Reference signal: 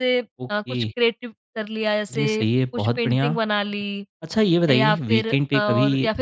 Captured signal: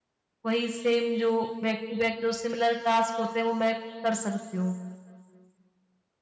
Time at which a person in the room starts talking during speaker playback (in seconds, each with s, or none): 0.5 s